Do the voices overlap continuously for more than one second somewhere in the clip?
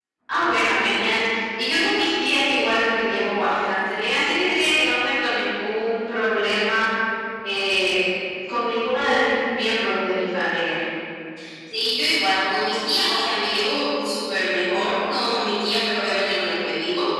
No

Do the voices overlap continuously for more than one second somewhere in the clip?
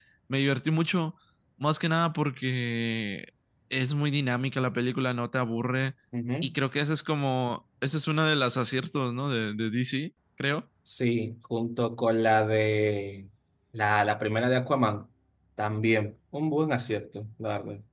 No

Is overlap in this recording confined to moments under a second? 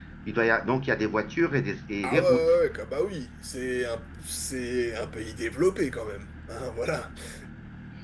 Yes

